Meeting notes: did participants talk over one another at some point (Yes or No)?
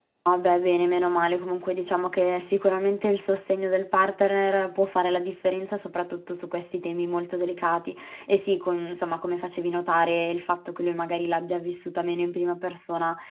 No